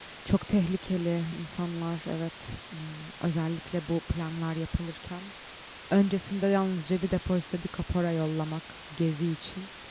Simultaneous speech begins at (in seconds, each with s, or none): none